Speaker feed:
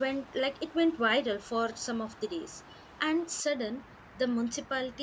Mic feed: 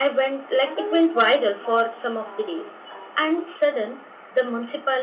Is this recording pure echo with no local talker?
No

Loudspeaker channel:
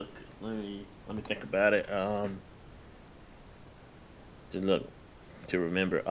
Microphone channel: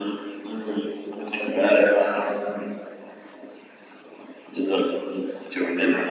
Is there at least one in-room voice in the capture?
No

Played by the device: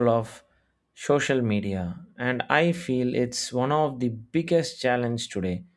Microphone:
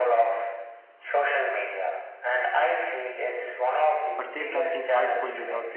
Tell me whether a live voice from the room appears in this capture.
Yes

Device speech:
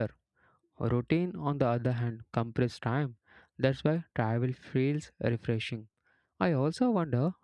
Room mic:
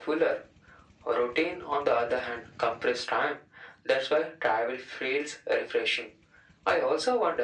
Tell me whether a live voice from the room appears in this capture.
No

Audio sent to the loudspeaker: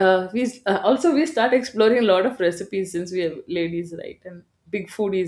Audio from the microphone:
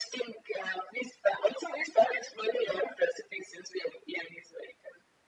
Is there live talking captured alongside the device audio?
No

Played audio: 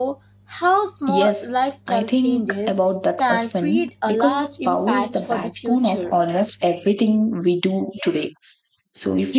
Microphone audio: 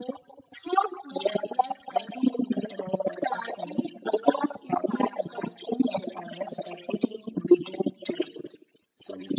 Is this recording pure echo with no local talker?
Yes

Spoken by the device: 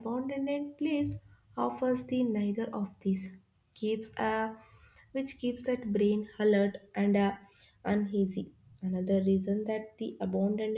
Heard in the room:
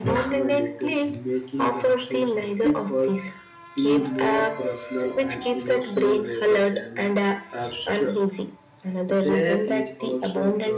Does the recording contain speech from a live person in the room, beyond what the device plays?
Yes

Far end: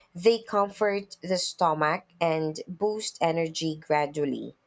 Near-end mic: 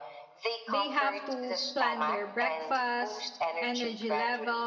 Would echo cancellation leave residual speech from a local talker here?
Yes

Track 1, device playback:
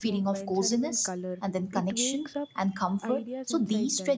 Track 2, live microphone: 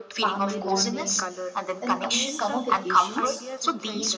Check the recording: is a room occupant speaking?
Yes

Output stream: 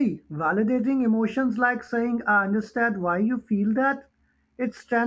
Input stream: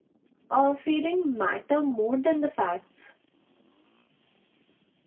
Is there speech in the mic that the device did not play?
Yes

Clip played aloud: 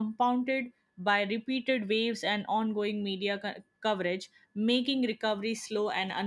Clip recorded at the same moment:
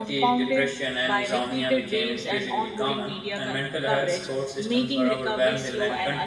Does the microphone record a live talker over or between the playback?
Yes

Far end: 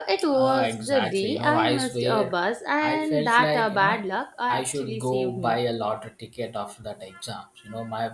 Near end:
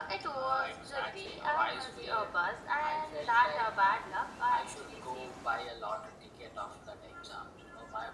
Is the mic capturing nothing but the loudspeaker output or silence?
Yes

